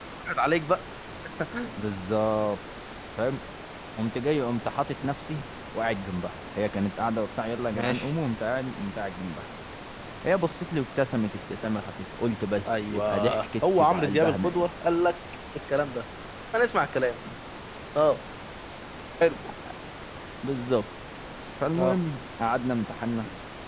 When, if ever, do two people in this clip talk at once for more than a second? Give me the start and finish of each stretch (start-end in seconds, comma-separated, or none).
12.7-14.7